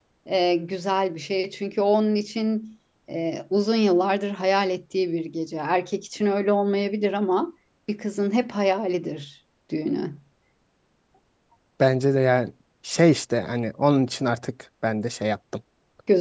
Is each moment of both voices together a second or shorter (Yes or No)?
Yes